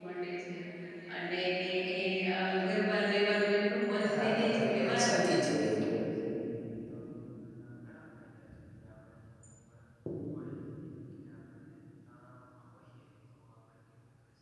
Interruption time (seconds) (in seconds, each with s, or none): 4.1 s